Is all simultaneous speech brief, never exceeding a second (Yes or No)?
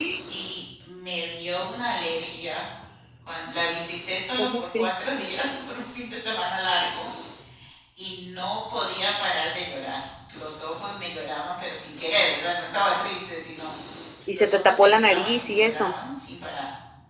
No